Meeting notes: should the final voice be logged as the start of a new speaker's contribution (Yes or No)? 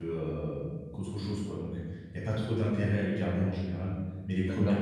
No